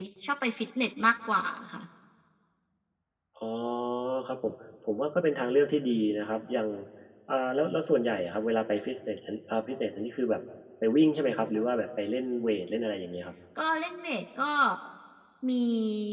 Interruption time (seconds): none

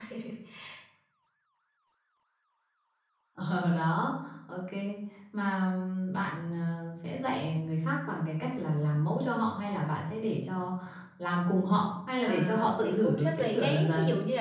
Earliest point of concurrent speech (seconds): 12 s

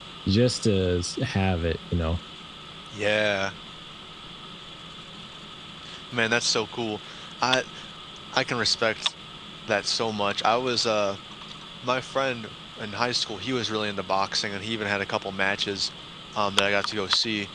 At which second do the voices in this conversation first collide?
none

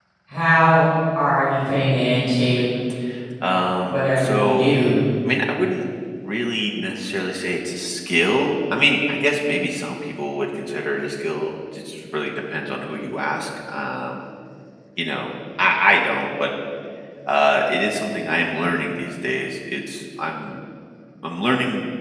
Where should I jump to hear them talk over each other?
4 s

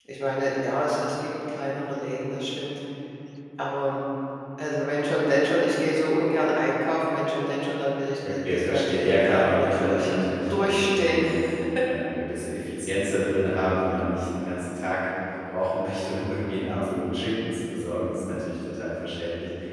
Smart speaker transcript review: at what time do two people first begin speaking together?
8 s

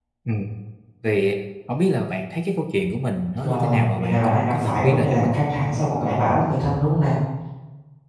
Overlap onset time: 3 s

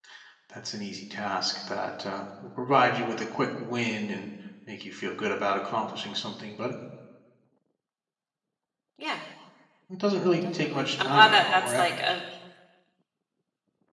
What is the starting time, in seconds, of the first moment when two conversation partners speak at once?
11 s

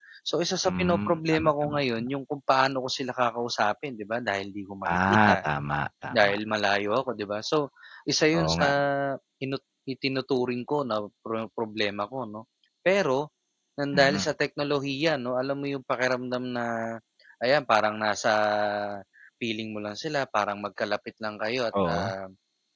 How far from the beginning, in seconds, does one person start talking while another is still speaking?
1 s

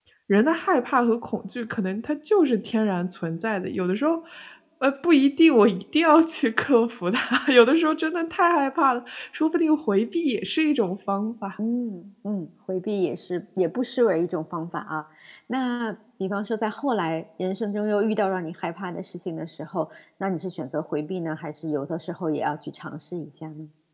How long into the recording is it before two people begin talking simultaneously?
none

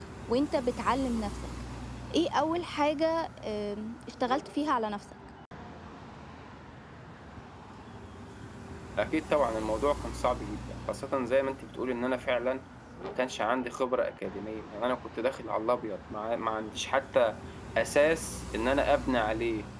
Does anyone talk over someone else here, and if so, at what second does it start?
none

